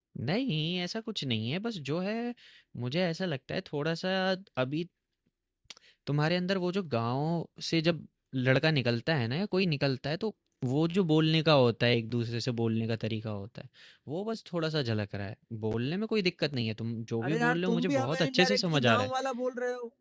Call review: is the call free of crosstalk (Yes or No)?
No